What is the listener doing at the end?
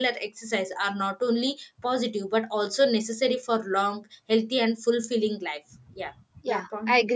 taking over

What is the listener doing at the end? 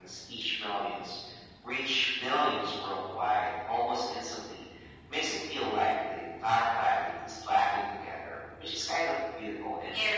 taking over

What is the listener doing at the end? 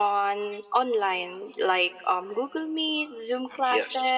listening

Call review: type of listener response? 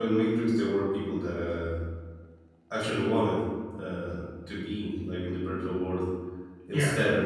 taking over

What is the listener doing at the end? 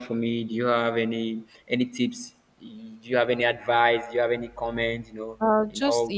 taking over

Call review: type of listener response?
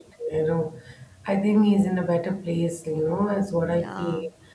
listening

